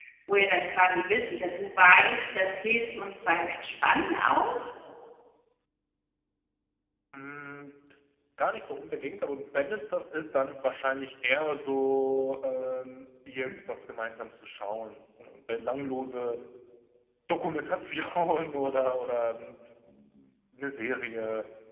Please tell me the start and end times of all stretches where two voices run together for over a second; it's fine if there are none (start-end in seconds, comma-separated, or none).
none